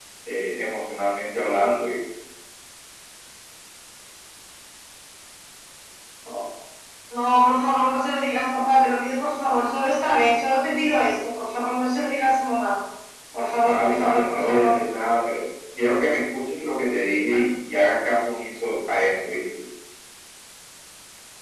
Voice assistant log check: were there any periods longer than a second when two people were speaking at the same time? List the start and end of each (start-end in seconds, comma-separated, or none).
13.6-14.8